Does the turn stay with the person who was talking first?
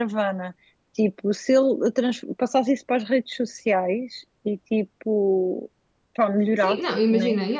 No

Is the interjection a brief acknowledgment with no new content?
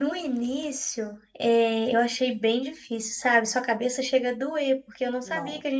Yes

